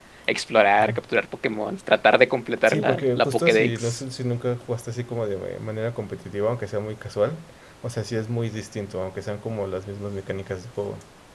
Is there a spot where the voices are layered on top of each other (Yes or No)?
Yes